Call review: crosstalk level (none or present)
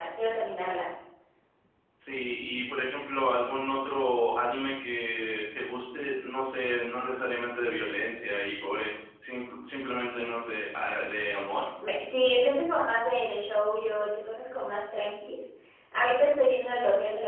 none